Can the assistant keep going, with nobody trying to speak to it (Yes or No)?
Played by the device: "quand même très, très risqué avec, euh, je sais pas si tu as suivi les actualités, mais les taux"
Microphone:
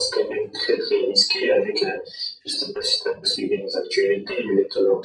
Yes